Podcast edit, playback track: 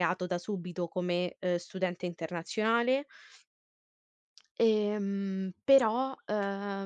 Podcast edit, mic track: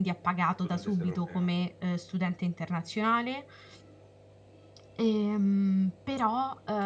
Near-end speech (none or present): present